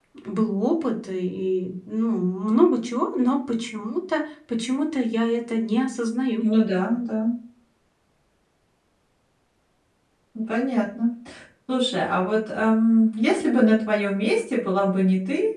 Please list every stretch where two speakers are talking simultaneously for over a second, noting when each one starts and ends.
none

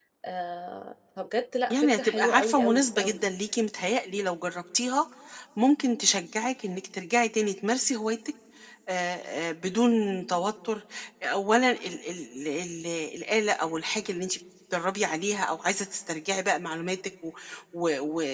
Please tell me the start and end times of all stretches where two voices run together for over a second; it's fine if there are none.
1.7-3.2

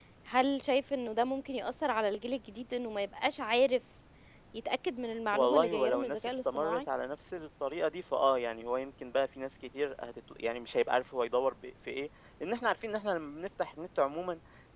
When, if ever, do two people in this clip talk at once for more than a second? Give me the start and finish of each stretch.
5.3-6.8

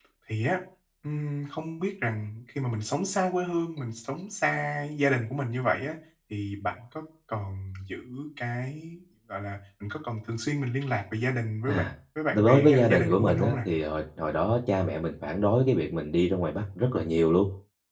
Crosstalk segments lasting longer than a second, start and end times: 12.3-13.6

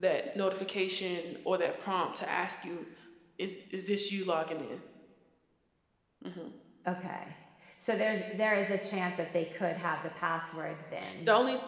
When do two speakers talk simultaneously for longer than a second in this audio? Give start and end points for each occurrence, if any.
none

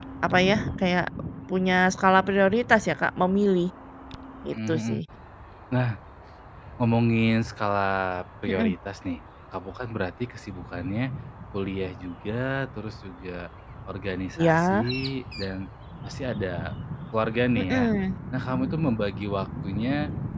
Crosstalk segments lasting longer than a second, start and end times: none

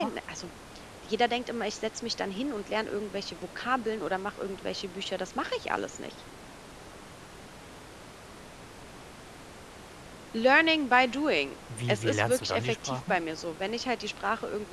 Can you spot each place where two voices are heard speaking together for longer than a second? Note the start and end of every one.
11.9-13.2

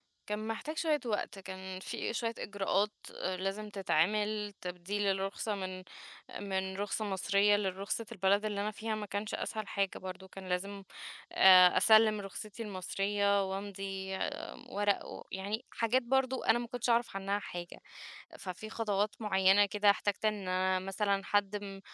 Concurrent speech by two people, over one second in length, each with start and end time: none

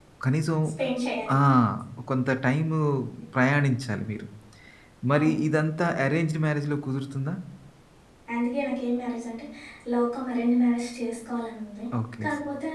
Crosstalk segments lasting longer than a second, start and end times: none

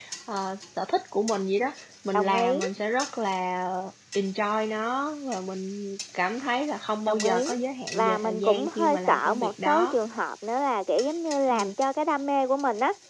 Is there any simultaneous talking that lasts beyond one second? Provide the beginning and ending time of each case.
7.9-10.0

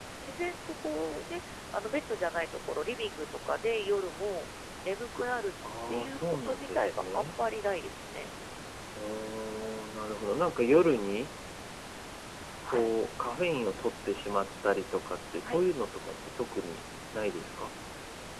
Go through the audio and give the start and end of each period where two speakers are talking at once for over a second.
5.9-7.2

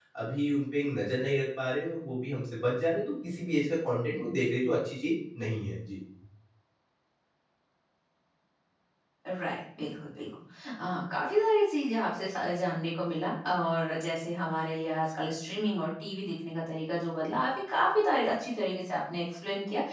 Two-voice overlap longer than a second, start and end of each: none

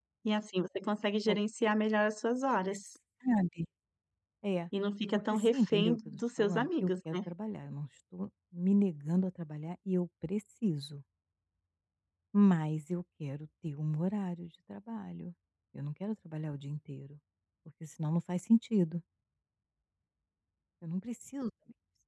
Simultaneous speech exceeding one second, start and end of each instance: 5.1-7.3

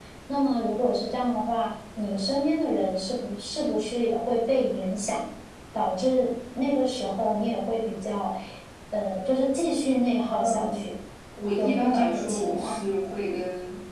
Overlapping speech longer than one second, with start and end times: 11.6-12.8

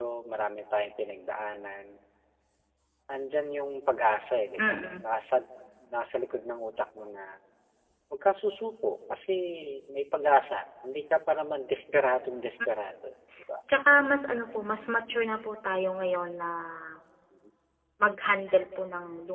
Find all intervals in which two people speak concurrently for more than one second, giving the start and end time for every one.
none

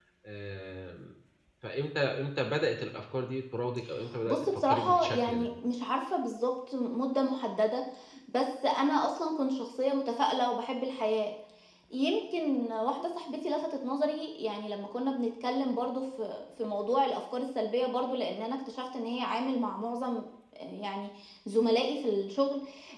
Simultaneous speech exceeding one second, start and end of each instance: 4.3-5.5

